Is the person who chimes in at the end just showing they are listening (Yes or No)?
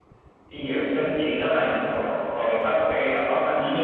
No